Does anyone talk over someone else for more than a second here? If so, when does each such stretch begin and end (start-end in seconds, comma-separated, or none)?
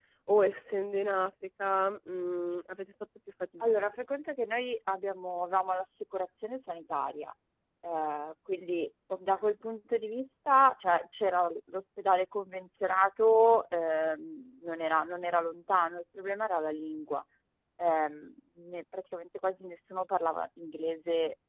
none